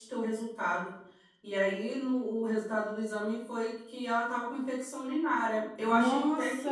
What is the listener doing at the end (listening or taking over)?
taking over